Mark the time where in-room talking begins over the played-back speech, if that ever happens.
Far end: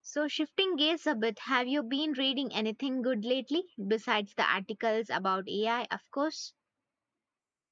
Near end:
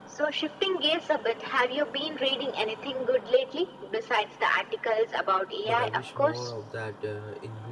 5.6 s

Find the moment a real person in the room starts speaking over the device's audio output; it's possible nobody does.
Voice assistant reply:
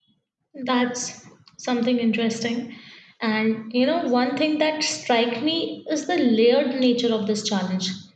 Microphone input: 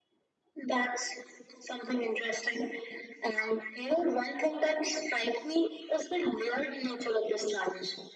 none

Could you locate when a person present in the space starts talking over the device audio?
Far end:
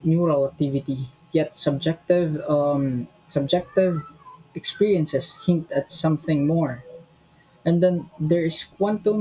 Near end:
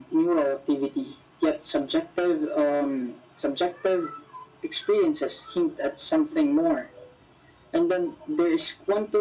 none

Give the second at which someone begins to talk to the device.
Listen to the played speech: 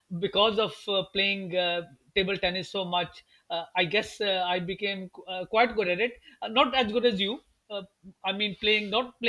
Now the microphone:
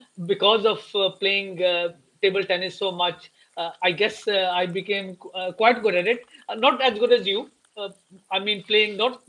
none

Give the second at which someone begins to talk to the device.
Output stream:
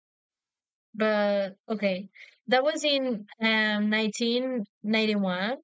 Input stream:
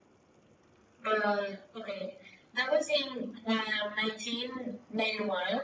none

